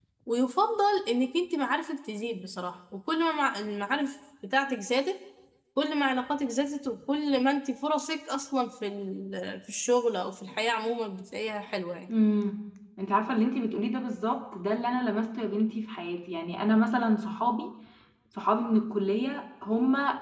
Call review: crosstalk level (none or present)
none